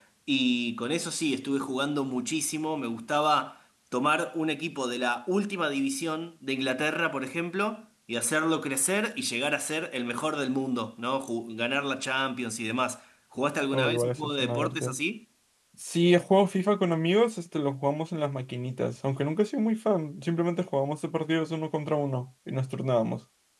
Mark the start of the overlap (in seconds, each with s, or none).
13.7 s